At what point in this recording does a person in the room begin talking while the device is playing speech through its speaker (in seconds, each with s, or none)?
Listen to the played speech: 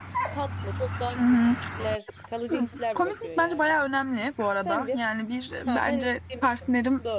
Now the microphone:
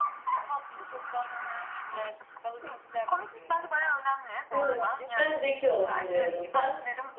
4.5 s